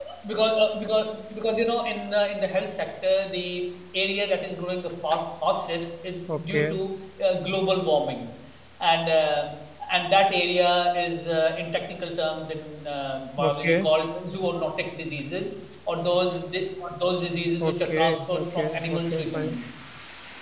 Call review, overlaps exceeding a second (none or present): present